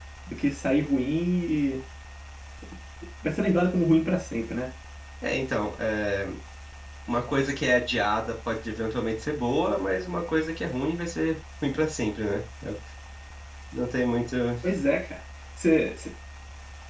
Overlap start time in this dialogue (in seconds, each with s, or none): none